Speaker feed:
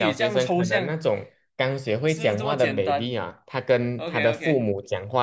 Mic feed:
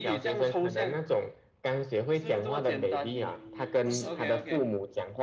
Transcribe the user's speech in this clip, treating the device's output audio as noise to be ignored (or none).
嗯，不是。